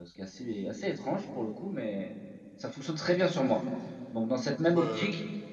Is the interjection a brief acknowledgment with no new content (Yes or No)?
Yes